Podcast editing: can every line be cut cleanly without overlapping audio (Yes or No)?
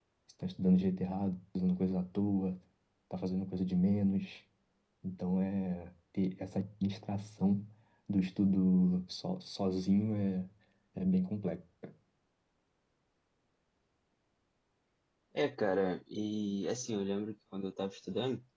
Yes